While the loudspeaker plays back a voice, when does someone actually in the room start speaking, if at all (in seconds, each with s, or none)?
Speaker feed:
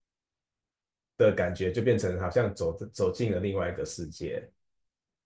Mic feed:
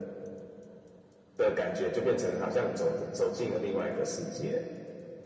4.3 s